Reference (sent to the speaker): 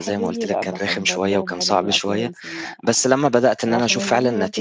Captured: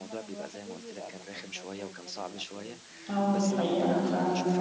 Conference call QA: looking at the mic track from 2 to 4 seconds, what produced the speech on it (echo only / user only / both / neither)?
both